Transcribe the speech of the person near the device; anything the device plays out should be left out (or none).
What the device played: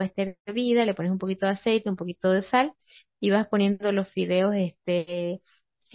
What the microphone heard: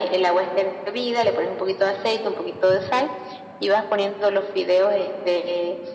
none